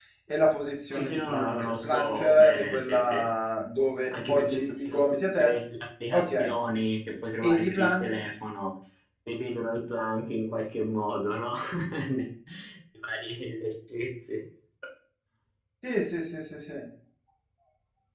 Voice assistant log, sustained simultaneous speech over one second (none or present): present